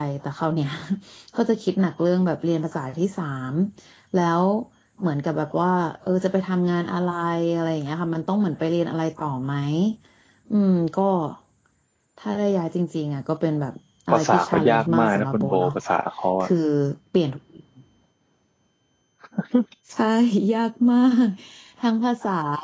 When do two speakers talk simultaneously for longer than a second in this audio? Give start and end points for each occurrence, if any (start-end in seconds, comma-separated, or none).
14.1-15.8